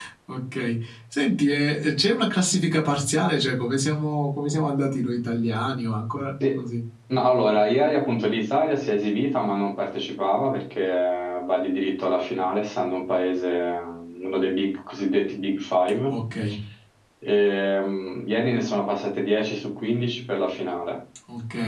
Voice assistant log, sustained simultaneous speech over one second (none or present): none